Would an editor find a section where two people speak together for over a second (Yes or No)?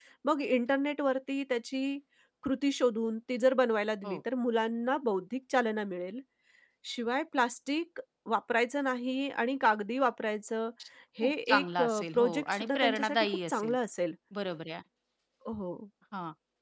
Yes